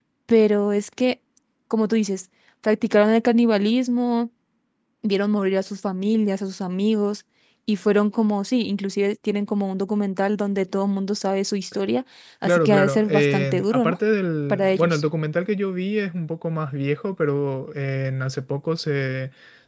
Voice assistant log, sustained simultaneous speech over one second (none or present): present